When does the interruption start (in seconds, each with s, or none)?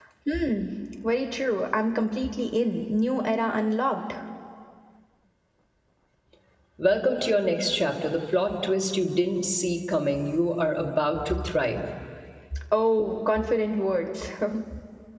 none